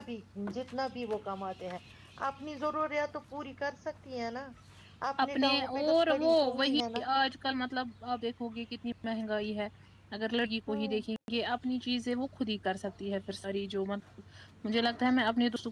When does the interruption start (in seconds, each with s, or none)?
5.4 s